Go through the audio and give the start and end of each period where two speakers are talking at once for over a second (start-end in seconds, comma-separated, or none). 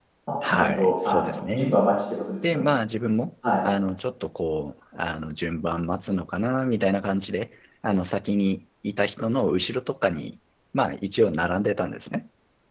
0.6-1.8